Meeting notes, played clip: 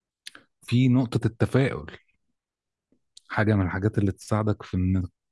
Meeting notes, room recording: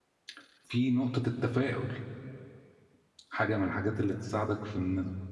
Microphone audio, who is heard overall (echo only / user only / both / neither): echo only